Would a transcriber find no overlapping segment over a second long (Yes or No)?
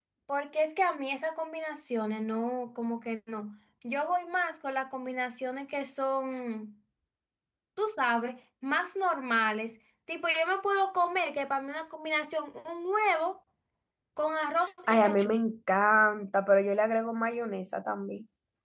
Yes